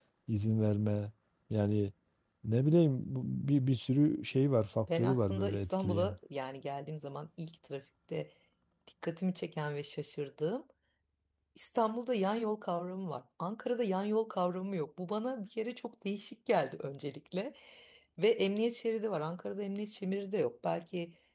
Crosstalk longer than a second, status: present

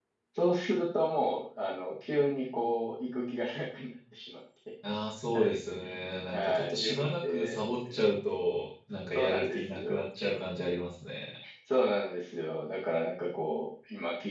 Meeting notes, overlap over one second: present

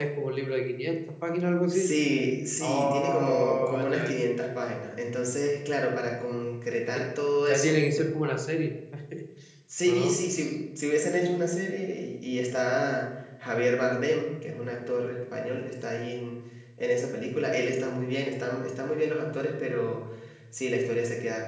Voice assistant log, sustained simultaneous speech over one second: present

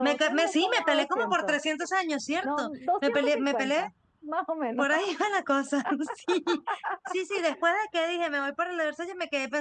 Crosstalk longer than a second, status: present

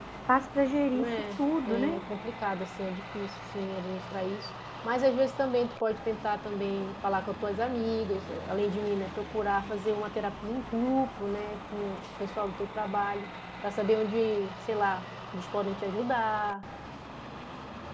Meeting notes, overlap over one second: none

